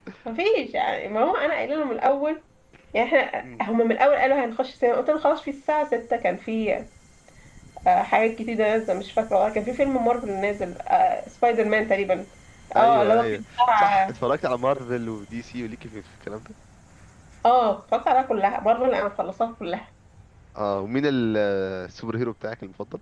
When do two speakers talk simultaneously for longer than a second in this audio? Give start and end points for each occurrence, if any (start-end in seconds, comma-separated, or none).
12.8-14.1